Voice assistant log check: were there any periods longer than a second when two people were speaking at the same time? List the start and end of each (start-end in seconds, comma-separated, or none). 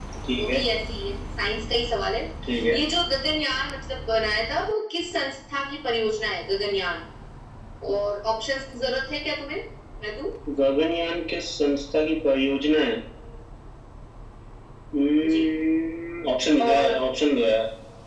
none